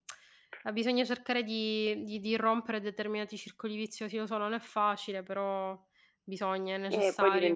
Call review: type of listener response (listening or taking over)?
taking over